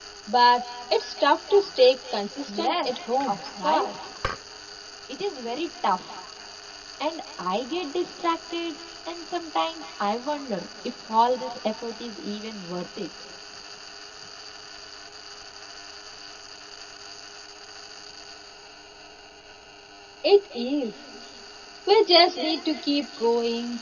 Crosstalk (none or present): present